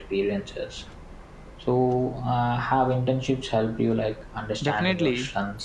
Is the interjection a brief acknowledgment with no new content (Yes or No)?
No